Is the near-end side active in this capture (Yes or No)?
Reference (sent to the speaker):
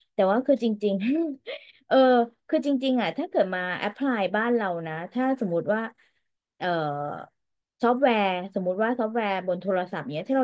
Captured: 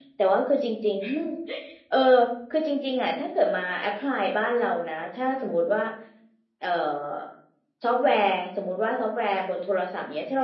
No